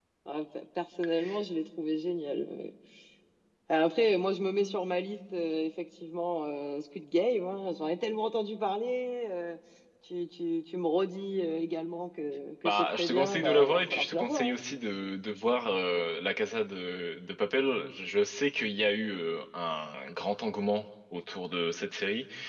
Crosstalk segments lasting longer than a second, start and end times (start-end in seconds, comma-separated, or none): 12.8-14.6